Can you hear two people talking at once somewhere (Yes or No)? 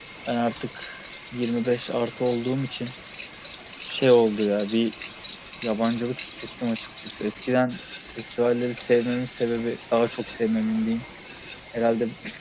No